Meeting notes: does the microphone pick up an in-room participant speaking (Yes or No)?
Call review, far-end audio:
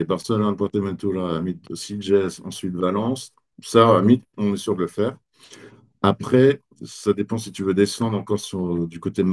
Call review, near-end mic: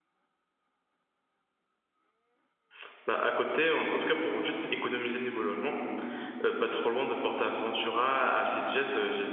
Yes